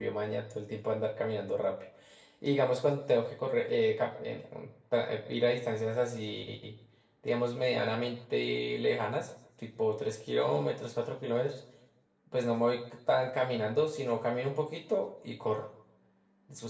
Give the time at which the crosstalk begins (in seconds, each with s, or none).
none